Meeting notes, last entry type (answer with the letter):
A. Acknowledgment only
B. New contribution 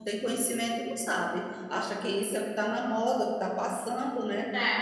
B